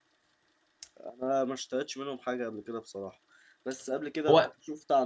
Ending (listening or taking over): listening